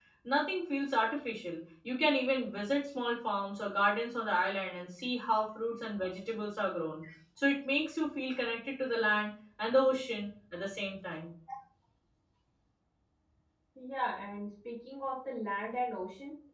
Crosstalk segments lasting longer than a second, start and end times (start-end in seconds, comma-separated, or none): none